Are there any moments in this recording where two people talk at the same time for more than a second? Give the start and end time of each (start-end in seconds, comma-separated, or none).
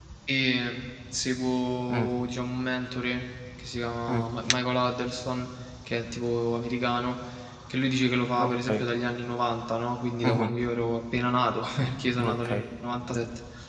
none